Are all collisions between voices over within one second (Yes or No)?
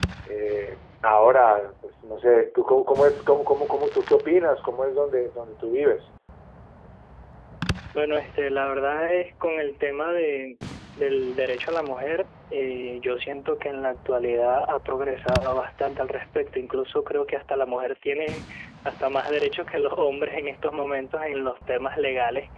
Yes